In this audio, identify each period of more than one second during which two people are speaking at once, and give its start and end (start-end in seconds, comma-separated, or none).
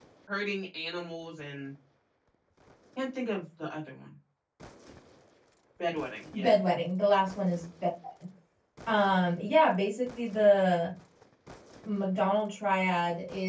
none